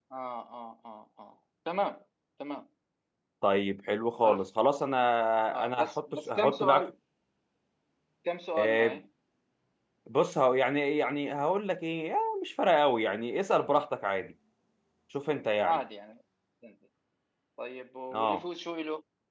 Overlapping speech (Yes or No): Yes